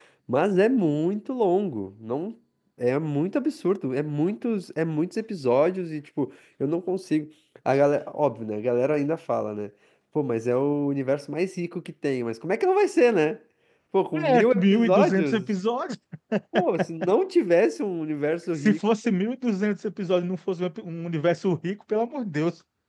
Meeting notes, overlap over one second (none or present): present